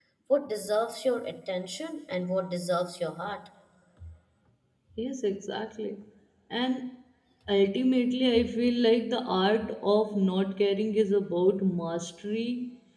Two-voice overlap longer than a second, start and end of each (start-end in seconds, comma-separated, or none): none